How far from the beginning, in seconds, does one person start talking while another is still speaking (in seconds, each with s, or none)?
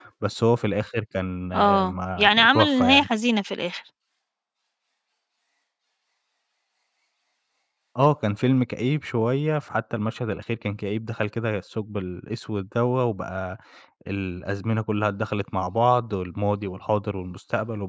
1.5 s